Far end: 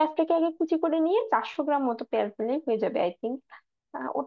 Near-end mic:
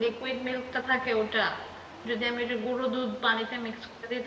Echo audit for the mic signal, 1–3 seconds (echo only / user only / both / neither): user only